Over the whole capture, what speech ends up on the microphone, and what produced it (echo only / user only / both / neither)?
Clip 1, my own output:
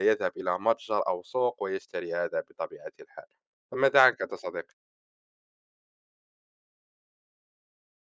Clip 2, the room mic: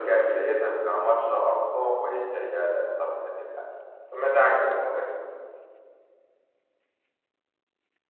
echo only